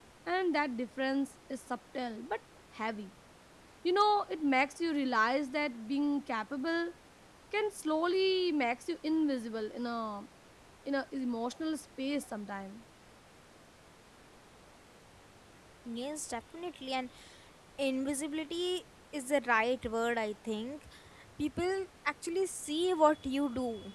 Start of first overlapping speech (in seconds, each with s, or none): none